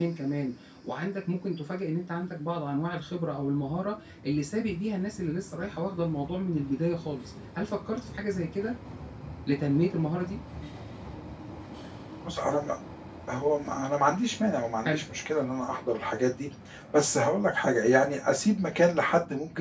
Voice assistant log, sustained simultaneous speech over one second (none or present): none